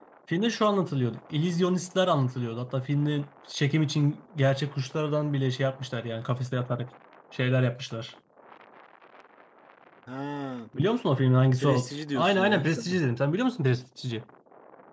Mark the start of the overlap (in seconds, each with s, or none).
11.6 s